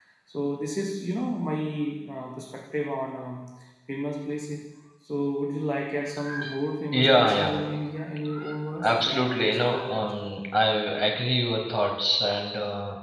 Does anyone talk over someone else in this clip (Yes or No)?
Yes